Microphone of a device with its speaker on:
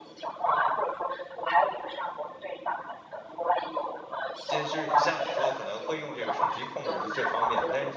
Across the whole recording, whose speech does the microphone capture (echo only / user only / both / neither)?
both